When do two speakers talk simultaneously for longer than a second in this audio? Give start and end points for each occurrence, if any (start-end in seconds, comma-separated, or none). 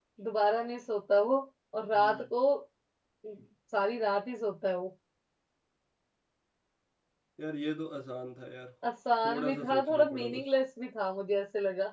9.2-10.4